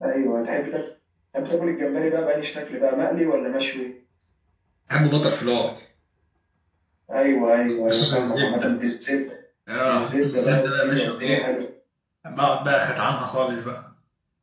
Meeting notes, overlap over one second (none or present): present